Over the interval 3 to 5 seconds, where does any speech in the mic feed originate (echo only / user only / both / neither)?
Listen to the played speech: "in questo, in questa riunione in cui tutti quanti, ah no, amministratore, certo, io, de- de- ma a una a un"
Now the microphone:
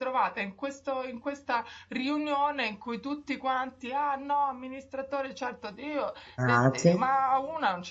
echo only